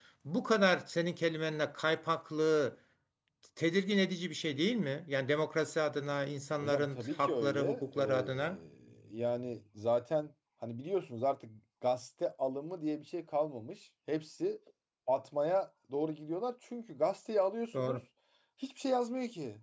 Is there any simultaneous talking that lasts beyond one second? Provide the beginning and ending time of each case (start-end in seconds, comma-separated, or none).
6.6-8.6